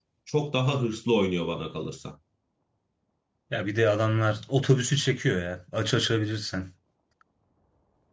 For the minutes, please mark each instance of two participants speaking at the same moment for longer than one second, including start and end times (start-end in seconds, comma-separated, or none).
none